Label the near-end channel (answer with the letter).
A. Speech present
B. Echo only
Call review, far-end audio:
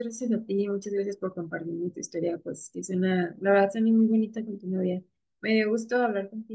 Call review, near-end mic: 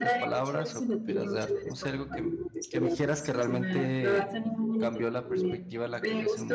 A